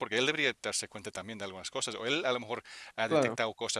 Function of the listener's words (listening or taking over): listening